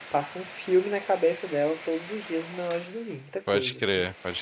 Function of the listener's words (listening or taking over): taking over